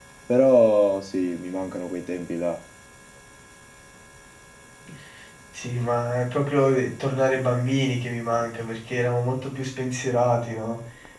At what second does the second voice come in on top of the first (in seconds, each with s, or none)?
none